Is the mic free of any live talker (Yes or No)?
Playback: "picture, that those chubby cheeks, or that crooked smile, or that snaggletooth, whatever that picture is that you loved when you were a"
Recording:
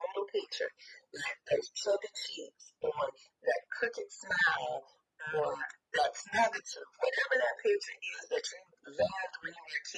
Yes